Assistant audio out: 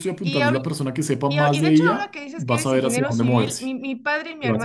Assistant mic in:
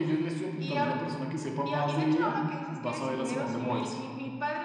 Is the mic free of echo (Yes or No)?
No